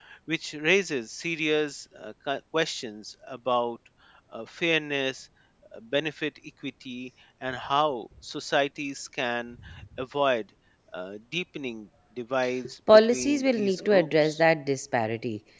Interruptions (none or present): present